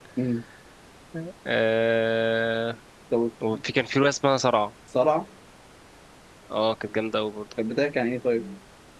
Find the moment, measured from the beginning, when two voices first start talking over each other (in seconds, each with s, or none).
none